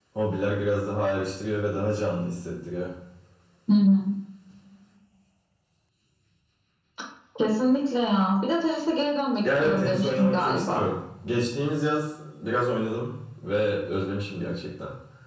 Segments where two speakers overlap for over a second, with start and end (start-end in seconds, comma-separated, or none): 9.6-10.9